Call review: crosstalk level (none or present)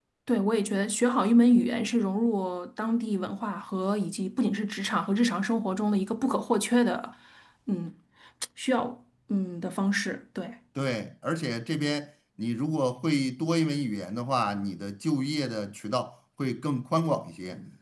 none